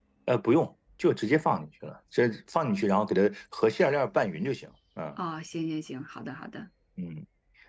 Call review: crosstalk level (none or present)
none